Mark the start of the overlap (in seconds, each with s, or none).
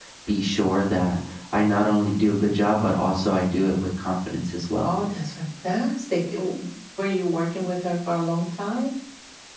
none